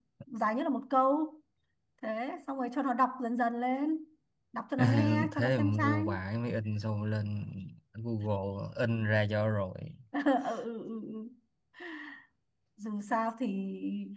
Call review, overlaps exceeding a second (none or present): present